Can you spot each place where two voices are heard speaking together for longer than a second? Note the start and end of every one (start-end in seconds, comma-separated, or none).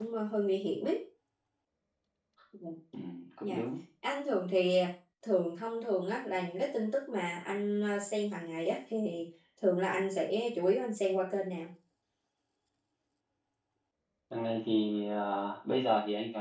none